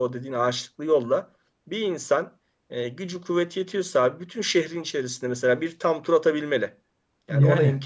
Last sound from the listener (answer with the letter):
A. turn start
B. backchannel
B